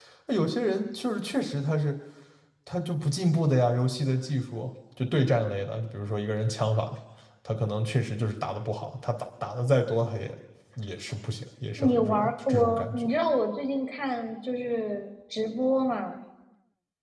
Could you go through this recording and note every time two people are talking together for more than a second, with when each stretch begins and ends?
11.8-13.1

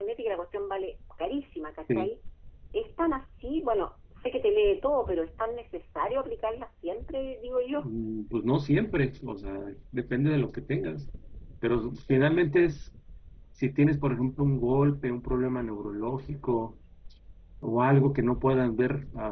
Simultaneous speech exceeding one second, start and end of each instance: none

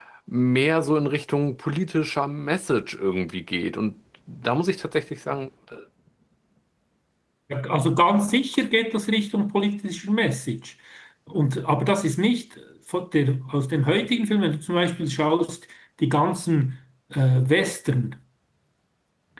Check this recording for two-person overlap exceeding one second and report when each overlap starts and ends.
none

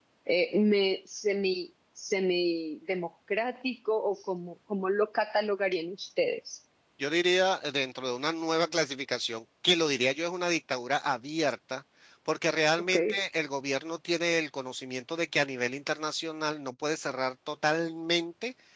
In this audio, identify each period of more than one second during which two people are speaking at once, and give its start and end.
none

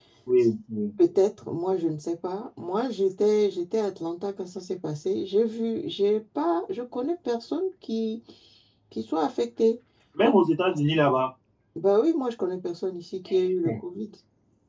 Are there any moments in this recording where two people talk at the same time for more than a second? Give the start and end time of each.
none

